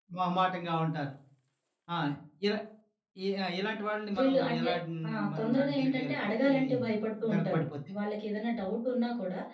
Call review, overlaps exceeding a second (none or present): present